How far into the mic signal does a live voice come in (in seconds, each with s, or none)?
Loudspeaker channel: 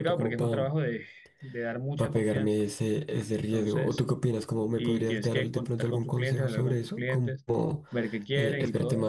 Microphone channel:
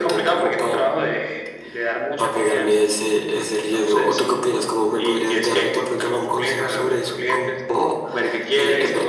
none